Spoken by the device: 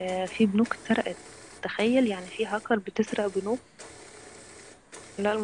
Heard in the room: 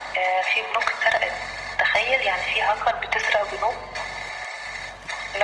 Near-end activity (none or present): none